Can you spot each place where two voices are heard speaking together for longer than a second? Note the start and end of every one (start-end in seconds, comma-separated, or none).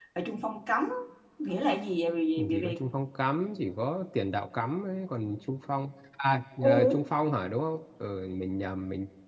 none